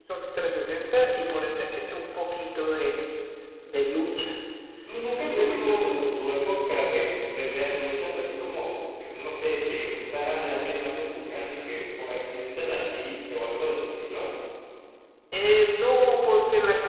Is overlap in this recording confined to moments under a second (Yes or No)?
Yes